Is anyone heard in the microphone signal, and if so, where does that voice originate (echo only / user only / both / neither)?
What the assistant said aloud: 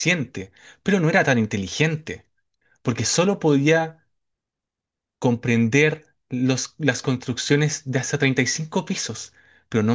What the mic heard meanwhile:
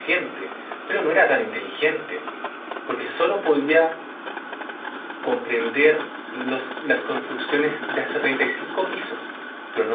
echo only